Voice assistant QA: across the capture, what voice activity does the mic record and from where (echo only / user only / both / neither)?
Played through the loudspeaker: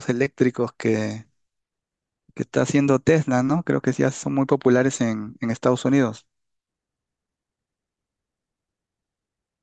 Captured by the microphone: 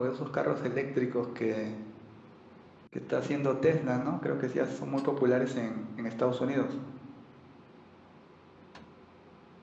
echo only